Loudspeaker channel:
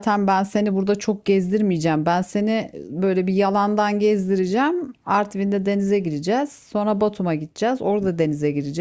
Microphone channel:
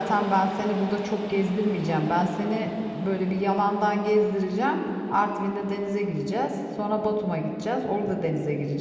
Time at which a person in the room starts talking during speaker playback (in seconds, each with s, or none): none